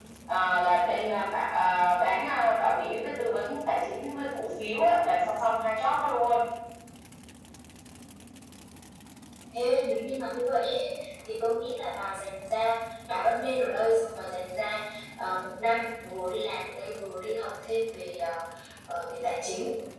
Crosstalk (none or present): none